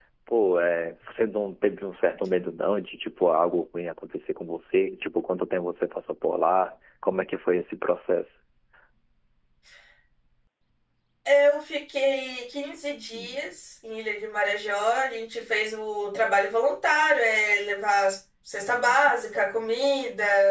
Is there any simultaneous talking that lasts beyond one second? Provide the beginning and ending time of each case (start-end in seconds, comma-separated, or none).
none